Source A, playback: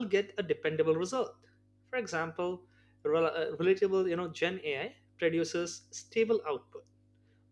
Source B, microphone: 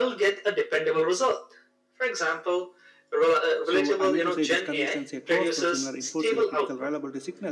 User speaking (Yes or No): Yes